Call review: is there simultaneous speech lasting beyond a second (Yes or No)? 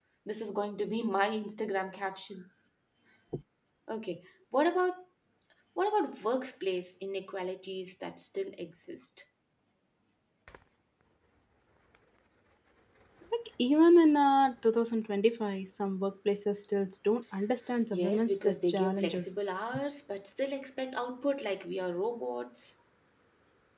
Yes